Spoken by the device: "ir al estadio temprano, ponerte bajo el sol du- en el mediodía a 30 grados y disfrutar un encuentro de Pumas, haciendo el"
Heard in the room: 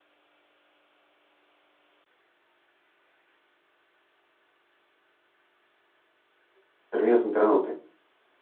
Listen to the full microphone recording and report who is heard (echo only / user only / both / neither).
user only